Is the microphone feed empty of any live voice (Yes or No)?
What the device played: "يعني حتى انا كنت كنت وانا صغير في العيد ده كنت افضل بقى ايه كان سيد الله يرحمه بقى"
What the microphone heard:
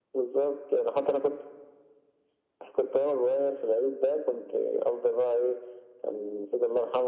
Yes